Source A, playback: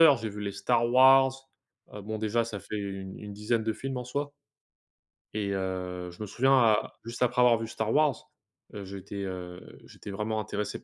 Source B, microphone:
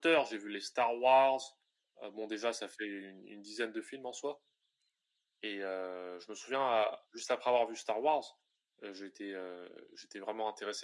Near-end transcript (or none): none